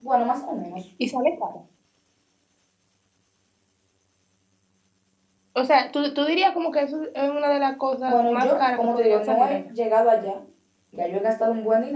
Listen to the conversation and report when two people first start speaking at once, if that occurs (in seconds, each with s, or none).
8.1 s